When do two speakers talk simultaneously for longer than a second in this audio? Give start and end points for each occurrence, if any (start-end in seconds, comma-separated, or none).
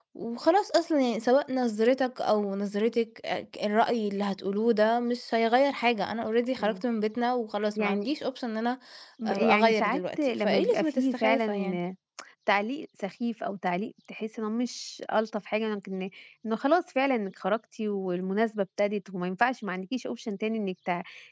9.3-11.8